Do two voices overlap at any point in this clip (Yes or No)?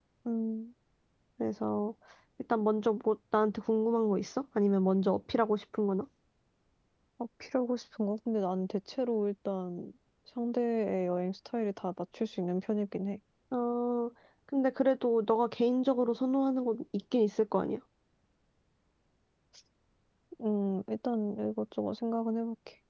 No